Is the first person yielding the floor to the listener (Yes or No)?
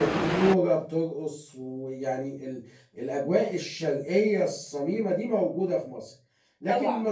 No